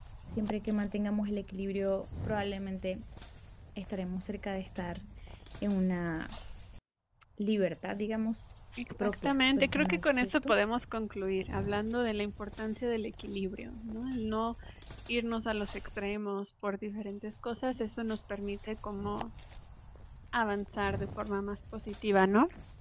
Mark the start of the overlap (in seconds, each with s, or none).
9.0 s